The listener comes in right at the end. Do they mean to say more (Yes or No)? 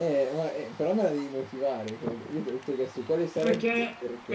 Yes